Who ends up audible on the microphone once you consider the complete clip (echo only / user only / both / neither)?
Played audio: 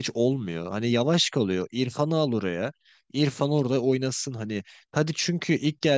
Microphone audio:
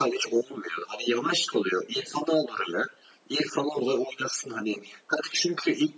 echo only